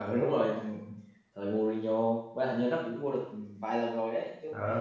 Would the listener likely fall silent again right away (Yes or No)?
No